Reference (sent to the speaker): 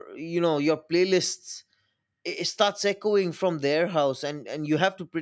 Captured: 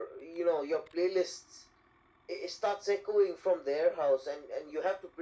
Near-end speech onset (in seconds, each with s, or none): none